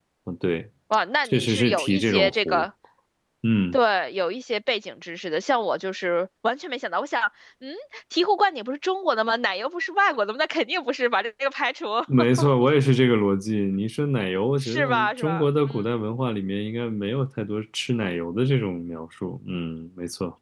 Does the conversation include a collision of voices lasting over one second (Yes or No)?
Yes